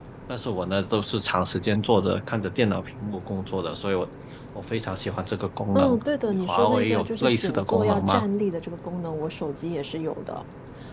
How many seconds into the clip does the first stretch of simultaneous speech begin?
5.7 s

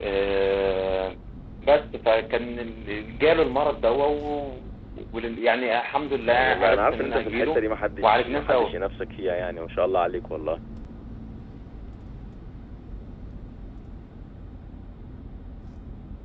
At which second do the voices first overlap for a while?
6.3 s

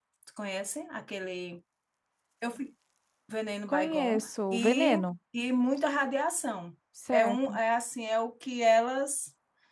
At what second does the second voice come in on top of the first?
3.7 s

